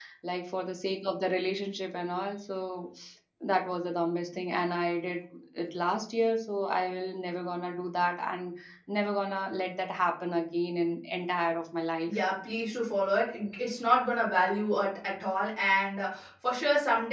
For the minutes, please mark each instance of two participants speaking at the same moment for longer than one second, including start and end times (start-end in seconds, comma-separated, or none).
none